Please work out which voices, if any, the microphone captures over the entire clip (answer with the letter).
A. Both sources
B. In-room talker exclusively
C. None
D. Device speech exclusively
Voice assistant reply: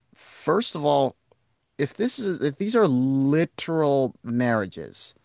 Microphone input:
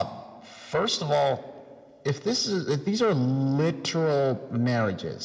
D